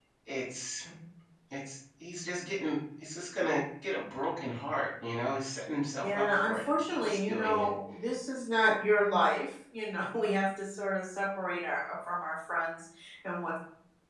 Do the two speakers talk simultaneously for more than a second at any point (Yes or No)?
Yes